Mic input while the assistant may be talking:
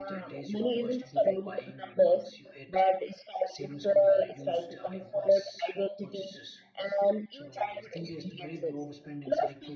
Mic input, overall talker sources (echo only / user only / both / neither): both